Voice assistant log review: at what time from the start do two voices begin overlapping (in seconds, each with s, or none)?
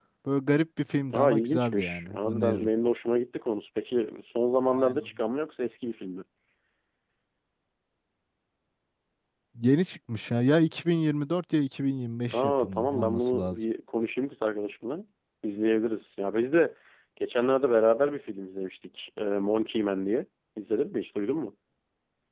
1.1 s